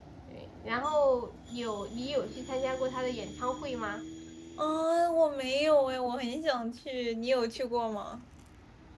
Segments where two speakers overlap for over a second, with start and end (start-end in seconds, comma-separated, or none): none